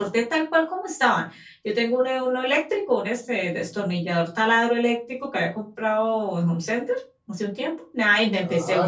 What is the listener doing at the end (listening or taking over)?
taking over